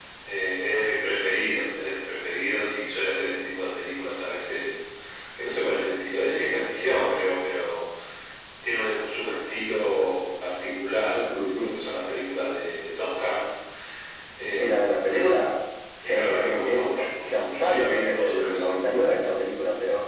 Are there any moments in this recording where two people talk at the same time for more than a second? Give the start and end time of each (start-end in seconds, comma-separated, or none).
16.0-18.7